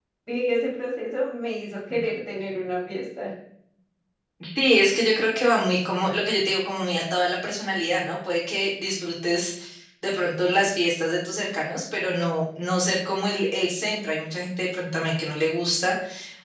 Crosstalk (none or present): none